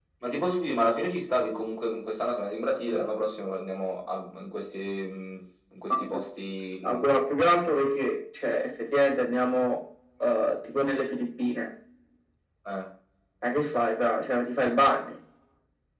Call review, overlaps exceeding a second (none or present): none